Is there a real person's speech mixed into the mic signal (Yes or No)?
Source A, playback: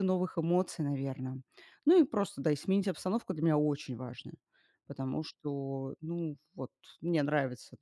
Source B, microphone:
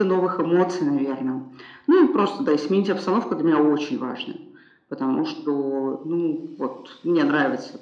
No